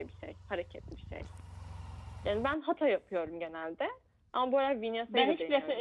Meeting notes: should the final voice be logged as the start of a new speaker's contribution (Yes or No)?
Yes